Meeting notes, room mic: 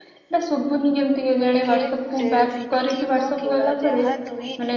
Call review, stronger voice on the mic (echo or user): echo